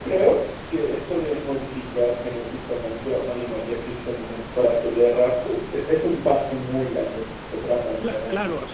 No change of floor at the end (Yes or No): No